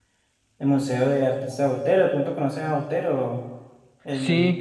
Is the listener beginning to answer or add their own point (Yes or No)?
Yes